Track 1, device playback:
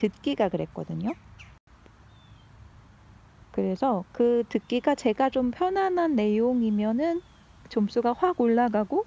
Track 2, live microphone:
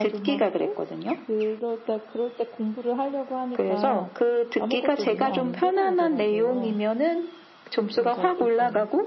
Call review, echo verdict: present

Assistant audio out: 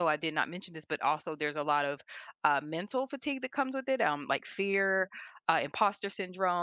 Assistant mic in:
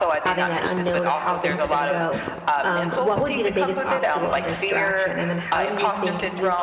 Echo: present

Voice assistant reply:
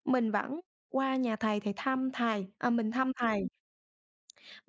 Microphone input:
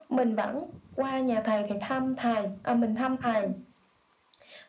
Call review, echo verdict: present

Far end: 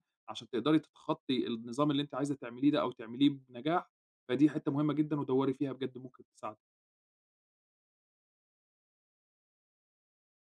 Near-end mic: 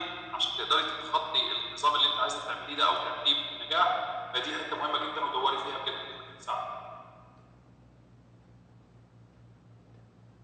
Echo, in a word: present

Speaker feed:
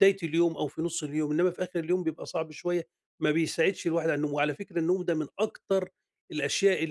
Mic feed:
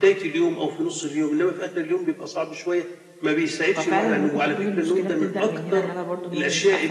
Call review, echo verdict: present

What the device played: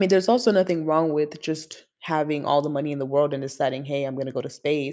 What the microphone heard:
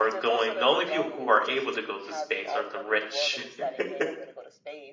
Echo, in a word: present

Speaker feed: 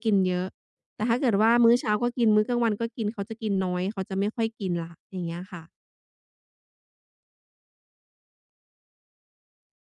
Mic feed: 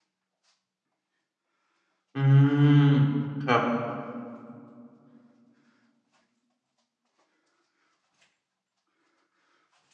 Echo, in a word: none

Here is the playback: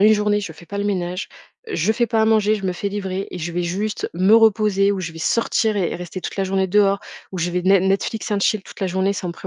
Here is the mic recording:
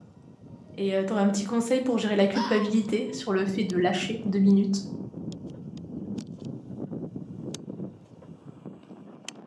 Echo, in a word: none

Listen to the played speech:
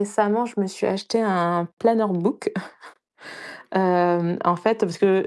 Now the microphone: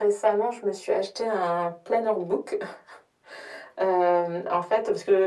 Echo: present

